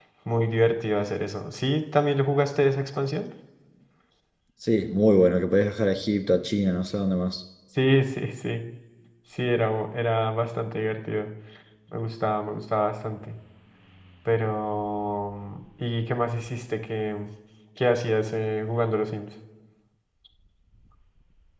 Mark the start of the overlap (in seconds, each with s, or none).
none